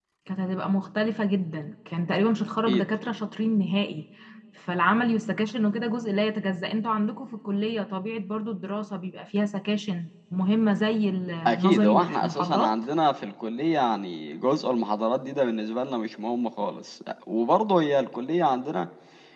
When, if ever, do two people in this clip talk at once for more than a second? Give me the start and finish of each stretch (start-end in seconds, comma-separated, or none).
11.5-12.7